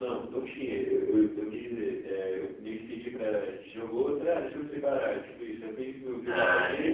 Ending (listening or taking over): listening